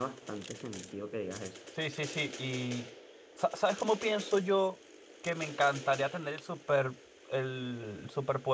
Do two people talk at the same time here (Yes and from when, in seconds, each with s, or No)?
No